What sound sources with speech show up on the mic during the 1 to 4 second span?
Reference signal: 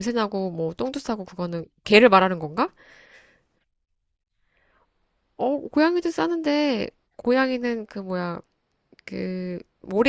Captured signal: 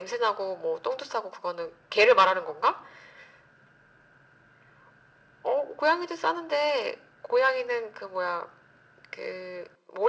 echo only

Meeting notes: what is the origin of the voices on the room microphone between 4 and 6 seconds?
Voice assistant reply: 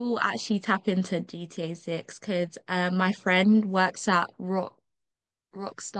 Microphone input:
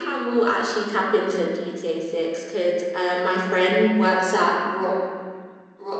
echo only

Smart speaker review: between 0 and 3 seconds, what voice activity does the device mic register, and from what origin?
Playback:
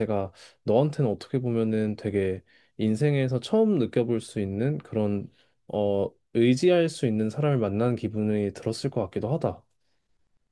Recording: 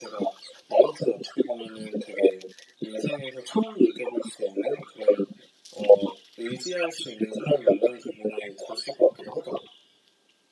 echo only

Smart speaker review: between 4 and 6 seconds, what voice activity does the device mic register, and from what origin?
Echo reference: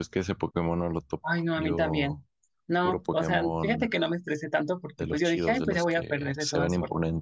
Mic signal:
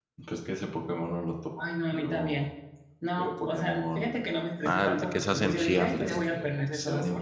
both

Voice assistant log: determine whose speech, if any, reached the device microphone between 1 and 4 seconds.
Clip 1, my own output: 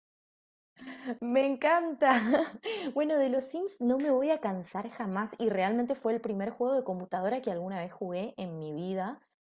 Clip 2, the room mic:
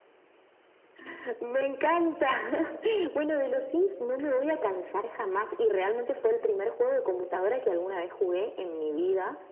echo only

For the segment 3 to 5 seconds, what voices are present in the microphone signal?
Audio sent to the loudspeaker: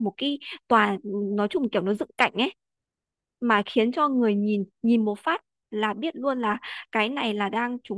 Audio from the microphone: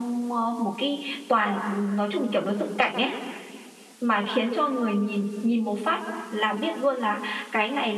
echo only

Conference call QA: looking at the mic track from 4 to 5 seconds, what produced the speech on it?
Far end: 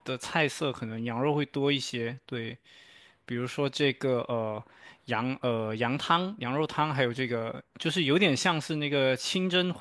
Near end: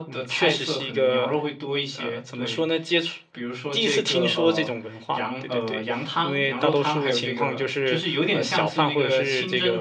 both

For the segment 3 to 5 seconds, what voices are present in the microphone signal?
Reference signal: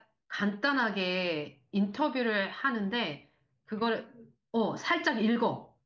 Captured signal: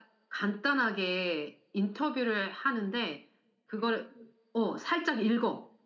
echo only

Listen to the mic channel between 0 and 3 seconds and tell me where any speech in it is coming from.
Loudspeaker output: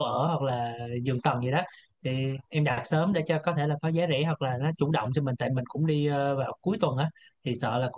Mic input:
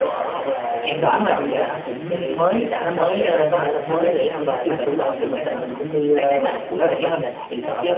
both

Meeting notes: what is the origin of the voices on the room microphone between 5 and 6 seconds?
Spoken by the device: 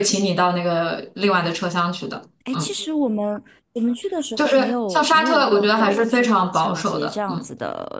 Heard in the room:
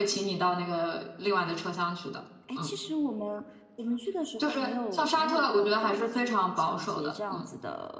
echo only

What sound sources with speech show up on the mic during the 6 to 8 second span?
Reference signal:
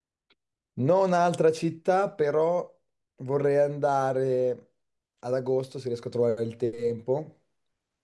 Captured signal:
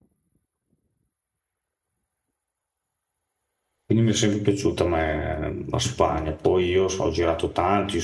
user only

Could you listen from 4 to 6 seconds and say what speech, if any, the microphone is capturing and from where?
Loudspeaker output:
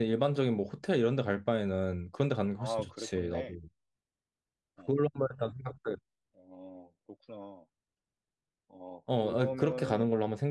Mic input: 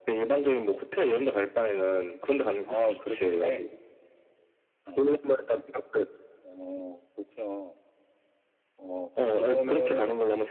echo only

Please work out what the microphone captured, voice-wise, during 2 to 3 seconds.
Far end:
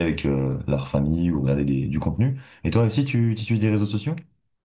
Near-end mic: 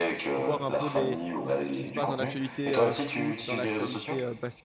both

